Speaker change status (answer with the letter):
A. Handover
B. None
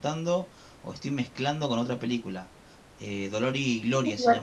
B